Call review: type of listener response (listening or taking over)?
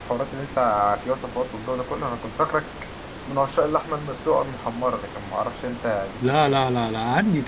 taking over